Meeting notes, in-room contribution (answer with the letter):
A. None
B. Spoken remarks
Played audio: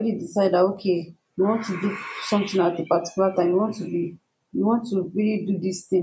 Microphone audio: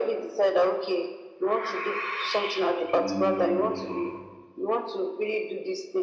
B